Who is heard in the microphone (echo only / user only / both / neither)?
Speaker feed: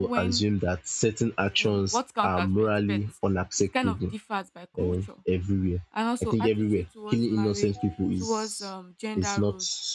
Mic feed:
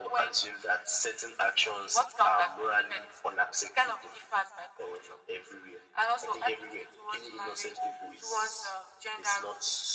echo only